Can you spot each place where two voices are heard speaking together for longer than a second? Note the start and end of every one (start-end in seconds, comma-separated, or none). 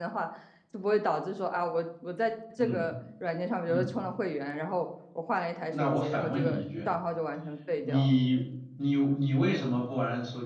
5.6-6.9